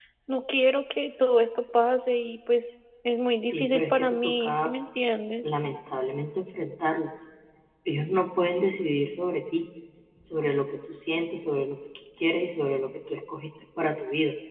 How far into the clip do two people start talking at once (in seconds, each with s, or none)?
3.5 s